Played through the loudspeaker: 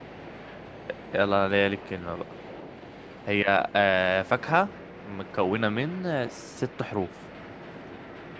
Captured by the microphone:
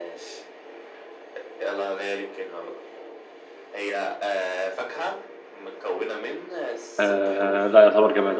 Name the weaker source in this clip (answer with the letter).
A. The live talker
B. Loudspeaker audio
B